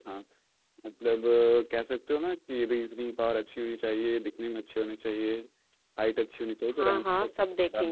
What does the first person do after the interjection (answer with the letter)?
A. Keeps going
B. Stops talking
B